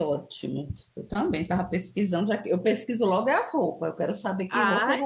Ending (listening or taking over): taking over